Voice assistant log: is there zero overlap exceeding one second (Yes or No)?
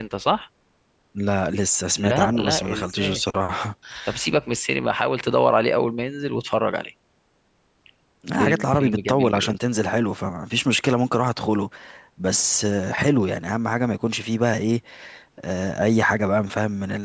No